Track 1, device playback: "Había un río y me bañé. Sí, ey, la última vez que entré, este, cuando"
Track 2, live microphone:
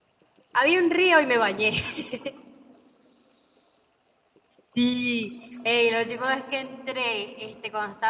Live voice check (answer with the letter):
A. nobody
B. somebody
A